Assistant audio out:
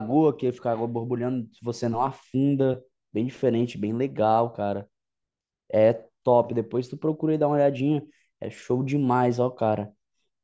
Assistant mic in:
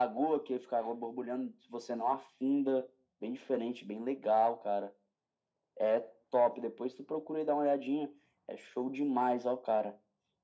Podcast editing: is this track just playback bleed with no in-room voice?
Yes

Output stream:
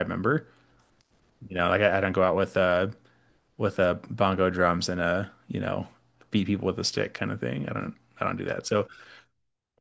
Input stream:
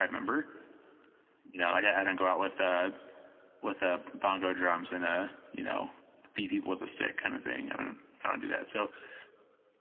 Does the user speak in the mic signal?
No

